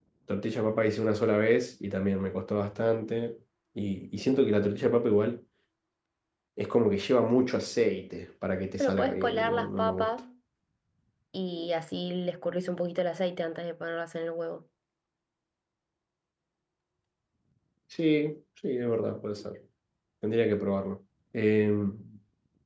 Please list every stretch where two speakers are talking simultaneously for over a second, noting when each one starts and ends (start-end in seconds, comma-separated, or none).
8.8-10.1